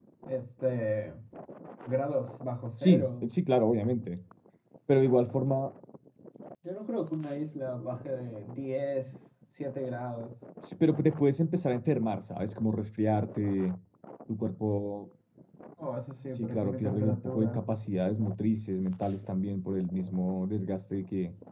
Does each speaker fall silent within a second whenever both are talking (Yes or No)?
No